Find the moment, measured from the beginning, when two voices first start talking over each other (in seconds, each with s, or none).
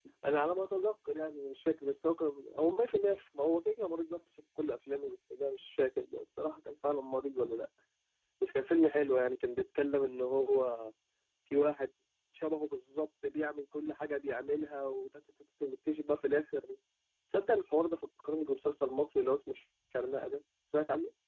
none